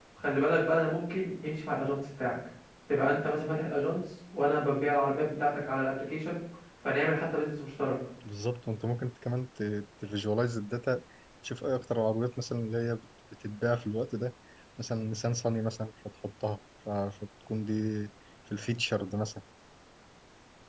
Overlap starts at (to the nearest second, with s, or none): none